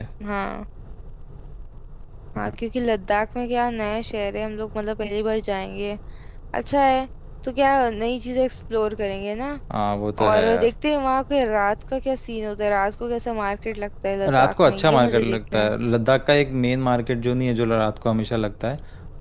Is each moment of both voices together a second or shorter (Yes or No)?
No